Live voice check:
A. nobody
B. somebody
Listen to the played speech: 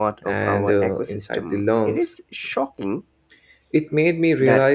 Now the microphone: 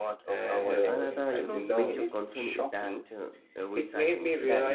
B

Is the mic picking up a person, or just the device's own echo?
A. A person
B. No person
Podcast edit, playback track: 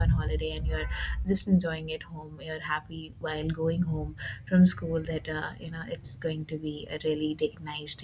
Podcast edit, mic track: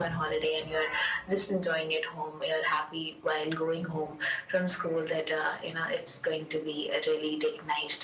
B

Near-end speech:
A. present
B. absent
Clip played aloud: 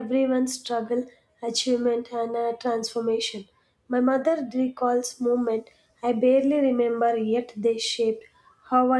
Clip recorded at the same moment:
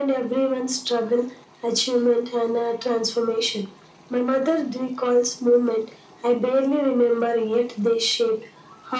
B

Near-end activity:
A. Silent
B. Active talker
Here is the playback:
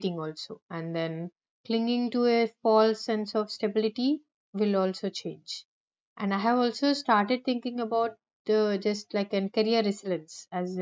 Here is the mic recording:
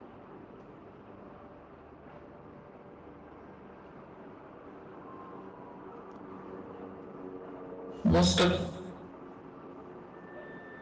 B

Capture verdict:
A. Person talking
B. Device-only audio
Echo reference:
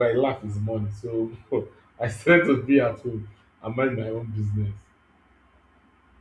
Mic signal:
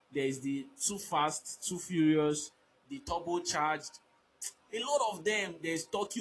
A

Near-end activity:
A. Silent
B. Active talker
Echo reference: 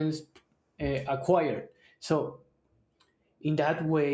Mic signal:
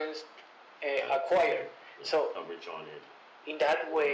B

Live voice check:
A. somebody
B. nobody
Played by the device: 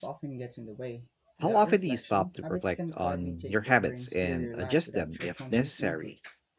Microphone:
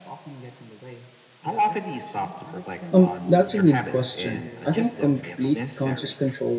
A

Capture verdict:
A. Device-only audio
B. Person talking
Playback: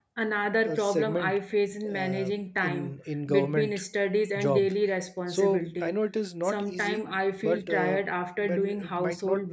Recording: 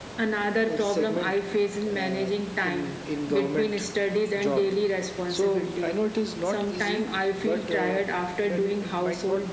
A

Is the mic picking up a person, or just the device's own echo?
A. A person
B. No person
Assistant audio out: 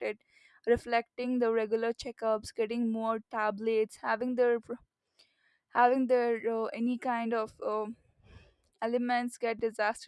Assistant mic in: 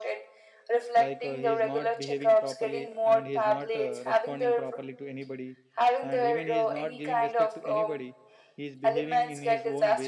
A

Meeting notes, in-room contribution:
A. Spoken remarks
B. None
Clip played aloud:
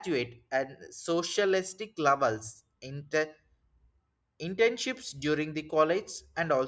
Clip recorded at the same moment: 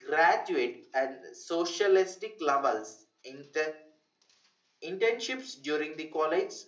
B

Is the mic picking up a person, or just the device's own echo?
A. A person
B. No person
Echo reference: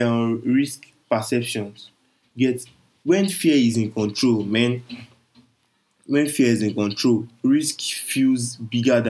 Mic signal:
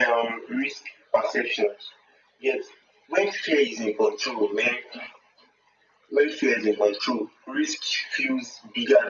B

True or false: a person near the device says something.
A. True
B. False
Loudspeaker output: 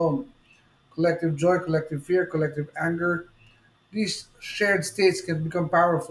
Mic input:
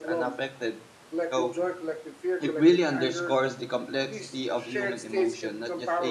A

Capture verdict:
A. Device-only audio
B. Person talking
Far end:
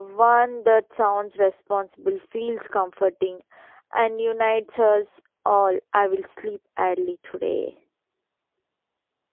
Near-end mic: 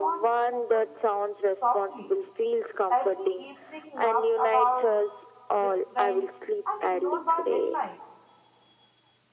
B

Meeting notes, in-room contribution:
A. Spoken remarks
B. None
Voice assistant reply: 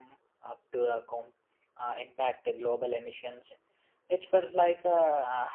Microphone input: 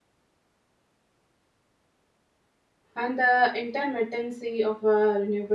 A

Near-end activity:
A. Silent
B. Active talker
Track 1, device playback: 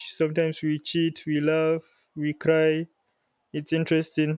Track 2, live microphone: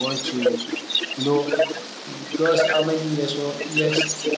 B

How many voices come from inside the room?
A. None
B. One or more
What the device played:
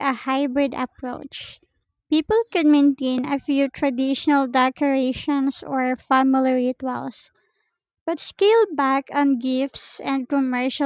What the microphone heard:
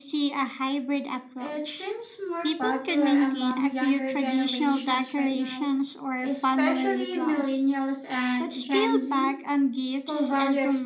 B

